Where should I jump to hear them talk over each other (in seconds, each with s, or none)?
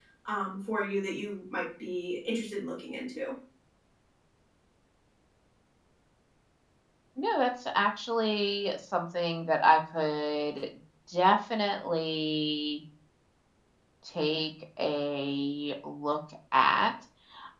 none